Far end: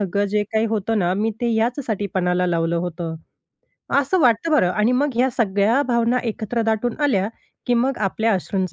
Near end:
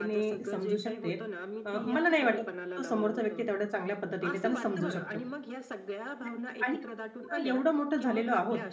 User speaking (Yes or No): Yes